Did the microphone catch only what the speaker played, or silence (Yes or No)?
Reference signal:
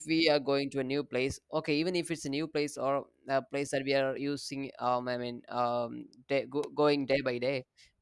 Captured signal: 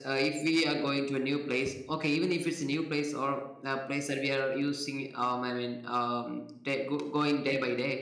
Yes